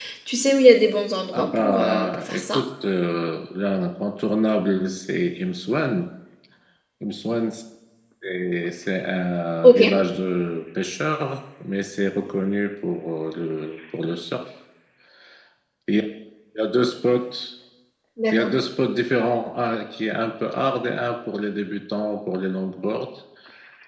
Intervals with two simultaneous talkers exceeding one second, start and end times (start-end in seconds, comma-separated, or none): 1.3-2.6